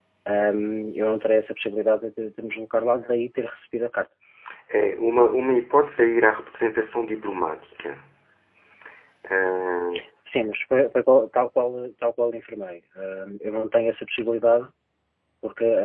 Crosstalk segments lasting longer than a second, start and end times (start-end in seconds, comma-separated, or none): none